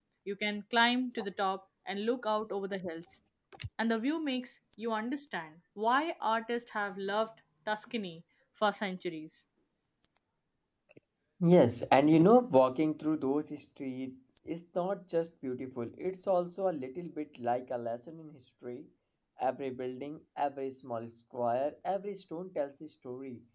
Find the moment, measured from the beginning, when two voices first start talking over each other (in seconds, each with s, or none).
none